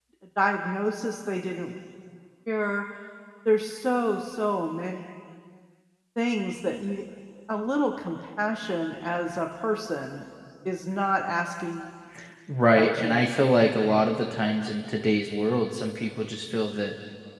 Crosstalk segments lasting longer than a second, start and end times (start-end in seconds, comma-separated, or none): none